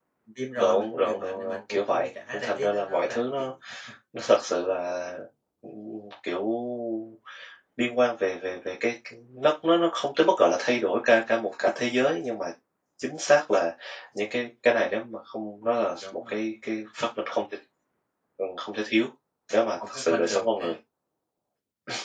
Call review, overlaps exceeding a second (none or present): present